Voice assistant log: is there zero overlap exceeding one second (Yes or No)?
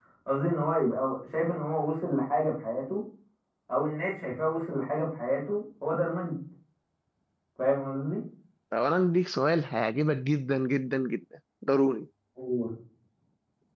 Yes